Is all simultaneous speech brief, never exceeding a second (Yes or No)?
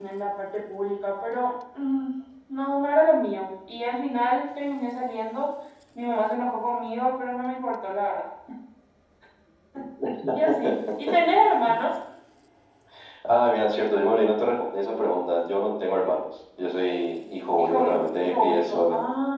No